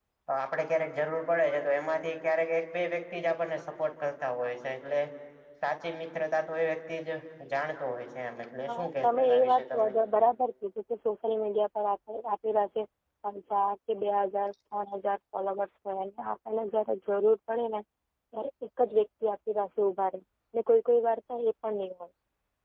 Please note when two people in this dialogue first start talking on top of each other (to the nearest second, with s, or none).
9 s